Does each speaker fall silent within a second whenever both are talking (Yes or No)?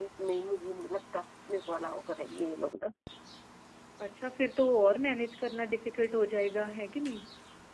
Yes